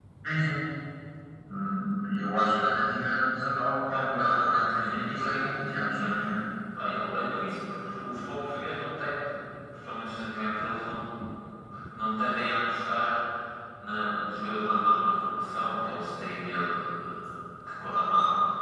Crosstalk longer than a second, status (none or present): present